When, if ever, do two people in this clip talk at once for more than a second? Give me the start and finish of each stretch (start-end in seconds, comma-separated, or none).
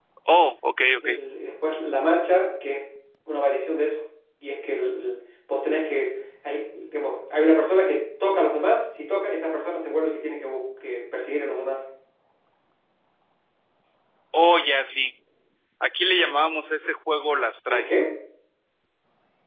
none